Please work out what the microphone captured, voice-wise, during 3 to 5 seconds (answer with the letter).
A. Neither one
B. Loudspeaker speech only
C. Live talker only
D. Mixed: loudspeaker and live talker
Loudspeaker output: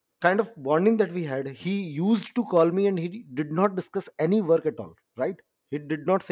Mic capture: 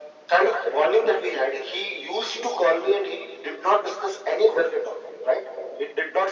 B